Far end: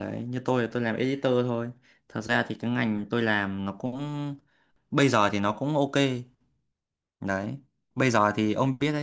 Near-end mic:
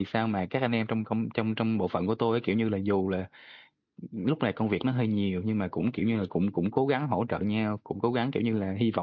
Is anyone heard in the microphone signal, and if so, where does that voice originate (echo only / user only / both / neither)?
user only